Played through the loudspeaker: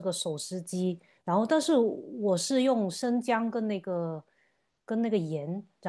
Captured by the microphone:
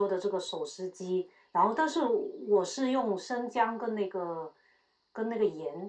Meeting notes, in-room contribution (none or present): none